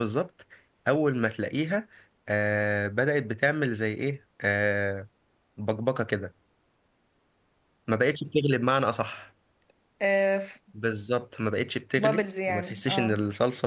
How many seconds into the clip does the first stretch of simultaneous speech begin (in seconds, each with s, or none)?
12.0 s